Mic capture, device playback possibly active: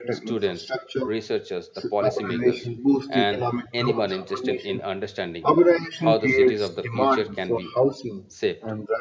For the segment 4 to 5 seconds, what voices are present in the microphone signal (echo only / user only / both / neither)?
both